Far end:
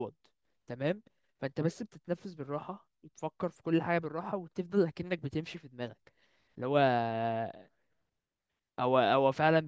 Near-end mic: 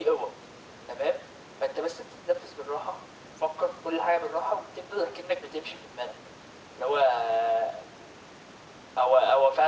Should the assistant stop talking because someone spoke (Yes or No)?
No